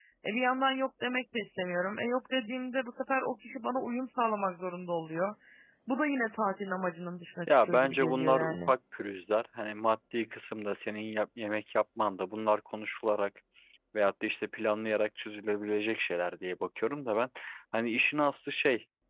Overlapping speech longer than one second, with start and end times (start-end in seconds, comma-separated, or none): 7.5-8.7